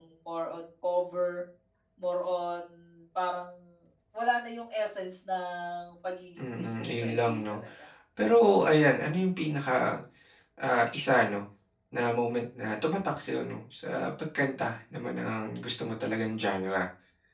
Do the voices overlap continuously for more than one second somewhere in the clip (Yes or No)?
Yes